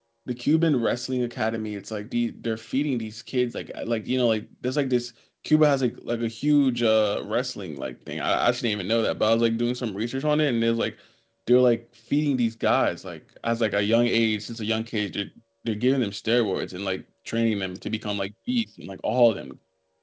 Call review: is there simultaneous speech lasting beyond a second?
No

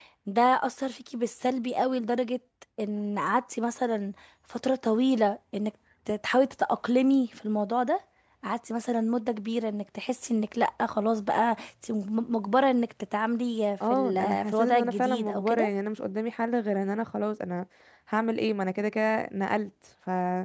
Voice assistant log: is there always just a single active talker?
No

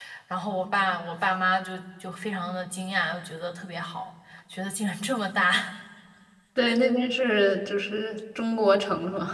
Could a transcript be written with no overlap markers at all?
Yes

